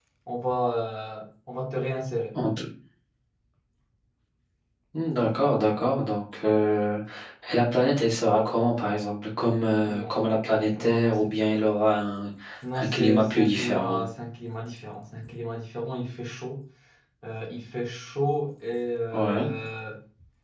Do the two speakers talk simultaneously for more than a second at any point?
Yes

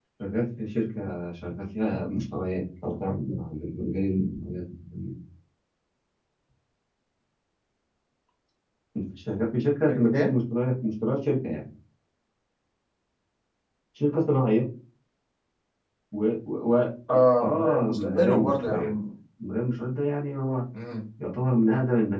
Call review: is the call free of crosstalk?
No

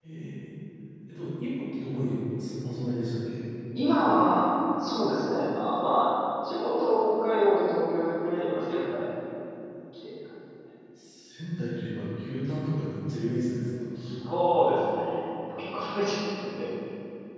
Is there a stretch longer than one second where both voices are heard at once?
No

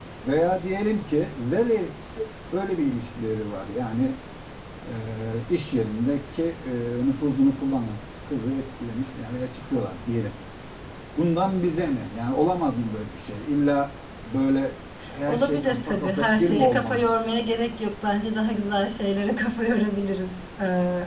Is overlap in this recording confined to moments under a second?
No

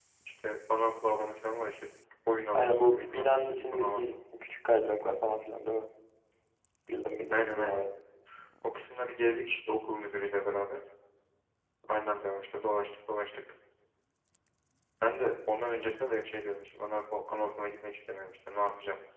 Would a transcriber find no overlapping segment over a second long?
No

